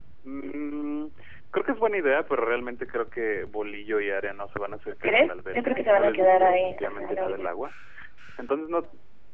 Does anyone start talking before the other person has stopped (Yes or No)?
Yes